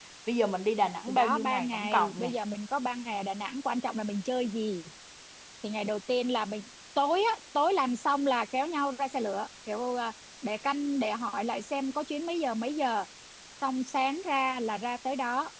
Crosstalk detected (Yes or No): Yes